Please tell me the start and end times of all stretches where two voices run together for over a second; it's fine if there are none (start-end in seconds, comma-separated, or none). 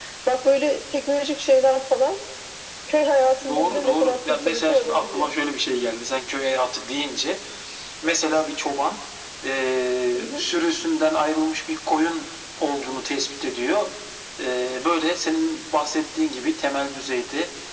3.5-5.3